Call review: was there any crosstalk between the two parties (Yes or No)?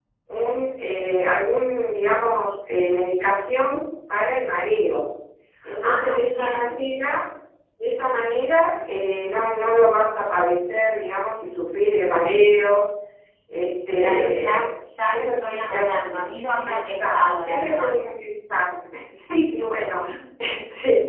Yes